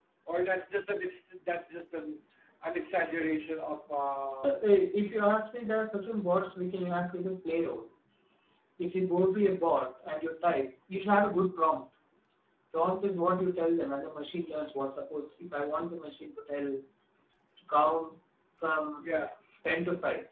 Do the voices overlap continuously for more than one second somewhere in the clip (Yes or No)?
No